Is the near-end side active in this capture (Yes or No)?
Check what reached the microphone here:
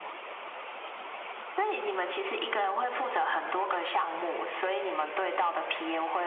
No